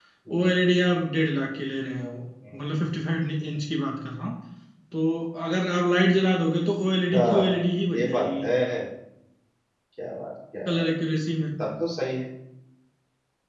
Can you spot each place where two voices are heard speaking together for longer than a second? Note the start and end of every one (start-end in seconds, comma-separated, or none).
7.1-8.4